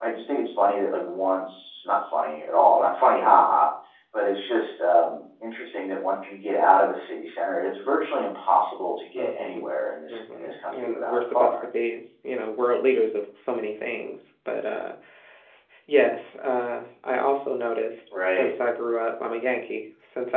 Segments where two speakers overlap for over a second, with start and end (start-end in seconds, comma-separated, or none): 10.1-11.6